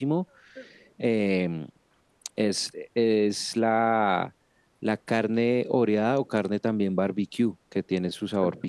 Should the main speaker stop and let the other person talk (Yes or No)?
No